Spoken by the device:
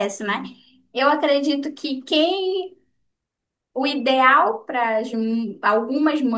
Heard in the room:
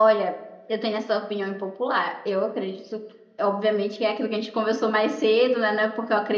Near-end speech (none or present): present